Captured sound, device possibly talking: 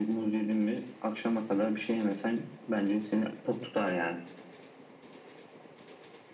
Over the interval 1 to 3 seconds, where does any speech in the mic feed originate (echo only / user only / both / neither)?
echo only